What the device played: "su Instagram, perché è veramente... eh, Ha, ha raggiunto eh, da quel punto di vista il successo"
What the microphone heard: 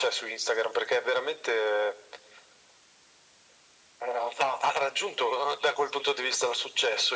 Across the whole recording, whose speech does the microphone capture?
echo only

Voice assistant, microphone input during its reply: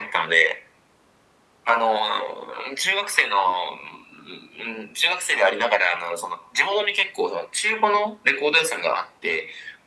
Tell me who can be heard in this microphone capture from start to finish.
echo only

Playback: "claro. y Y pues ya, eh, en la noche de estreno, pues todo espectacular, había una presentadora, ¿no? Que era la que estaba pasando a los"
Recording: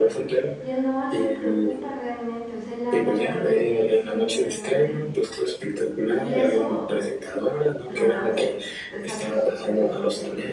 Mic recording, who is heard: both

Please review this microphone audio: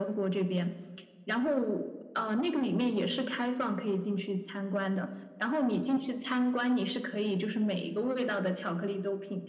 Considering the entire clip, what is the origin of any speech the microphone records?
echo only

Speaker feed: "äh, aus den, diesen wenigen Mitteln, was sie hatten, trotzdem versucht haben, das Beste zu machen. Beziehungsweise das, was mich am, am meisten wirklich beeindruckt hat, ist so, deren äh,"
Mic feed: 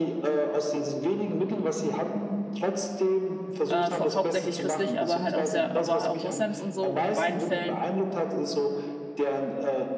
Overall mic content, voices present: both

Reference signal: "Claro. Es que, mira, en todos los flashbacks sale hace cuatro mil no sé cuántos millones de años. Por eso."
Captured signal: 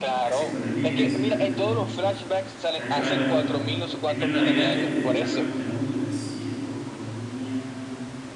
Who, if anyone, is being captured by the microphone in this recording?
both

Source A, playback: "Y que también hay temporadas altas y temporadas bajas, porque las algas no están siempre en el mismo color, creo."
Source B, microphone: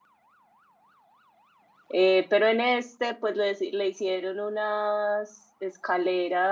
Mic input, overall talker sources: user only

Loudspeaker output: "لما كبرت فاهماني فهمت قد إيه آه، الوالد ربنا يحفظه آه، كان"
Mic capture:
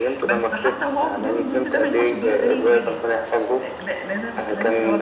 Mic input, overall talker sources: both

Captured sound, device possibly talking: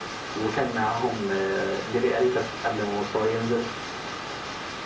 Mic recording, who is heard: echo only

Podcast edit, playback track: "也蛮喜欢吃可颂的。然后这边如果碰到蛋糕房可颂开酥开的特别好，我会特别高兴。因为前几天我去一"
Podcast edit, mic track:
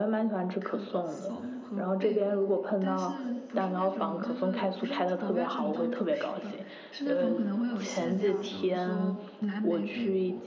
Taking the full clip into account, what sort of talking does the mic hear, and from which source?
both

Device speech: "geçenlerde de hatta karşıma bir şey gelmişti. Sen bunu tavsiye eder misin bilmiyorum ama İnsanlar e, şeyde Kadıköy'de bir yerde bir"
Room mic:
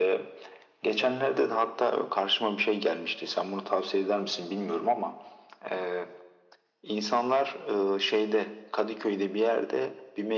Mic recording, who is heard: both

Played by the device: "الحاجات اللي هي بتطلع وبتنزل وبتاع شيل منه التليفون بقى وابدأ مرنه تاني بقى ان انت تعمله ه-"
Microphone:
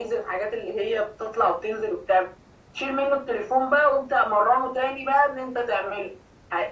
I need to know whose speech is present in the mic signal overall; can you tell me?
echo only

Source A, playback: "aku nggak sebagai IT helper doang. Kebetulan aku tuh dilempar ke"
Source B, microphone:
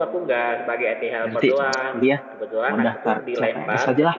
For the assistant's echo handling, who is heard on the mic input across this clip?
both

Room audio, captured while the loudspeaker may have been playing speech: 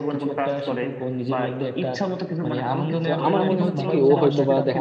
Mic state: both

